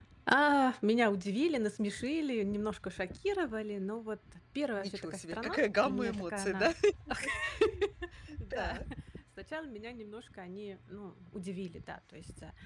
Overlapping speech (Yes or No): Yes